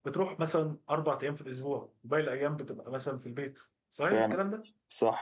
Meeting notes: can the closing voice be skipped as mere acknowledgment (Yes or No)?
No